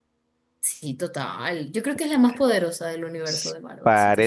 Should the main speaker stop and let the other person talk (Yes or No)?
Yes